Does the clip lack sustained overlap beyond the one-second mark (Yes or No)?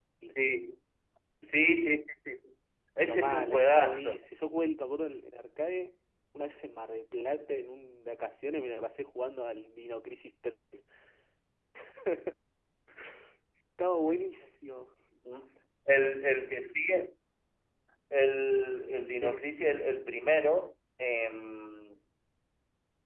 No